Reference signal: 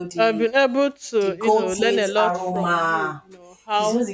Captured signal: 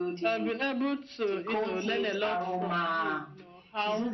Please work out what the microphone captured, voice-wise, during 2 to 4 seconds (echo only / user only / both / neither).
echo only